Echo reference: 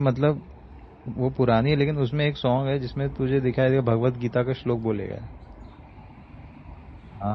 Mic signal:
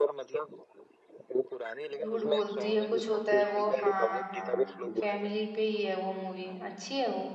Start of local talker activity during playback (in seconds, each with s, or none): 2.0 s